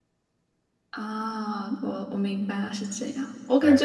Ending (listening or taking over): listening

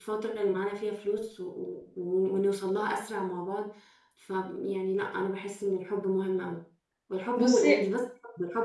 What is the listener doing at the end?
listening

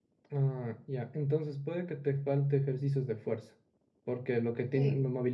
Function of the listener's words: listening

